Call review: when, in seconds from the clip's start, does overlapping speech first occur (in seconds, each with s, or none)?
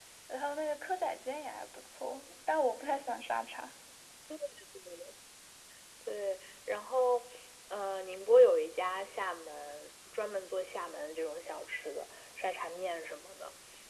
none